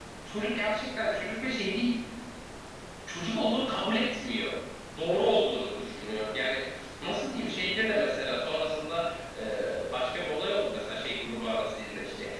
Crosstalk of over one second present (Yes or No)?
No